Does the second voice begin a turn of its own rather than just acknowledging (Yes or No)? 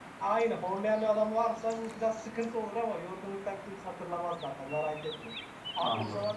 No